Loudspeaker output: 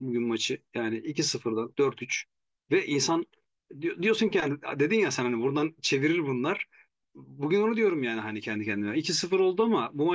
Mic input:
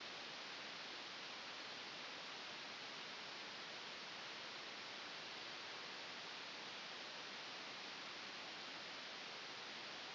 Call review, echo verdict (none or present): none